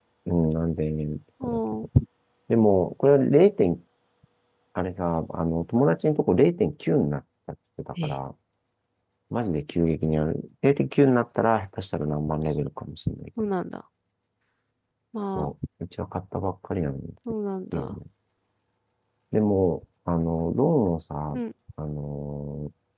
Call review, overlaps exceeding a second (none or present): none